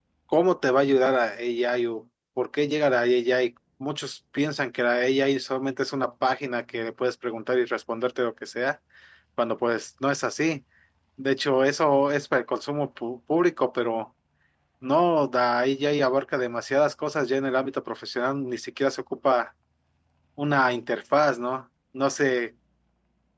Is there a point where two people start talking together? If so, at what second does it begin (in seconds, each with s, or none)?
none